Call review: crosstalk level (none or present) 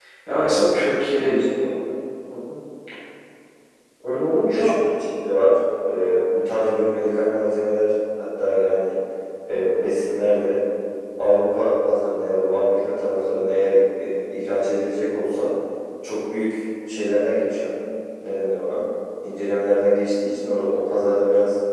present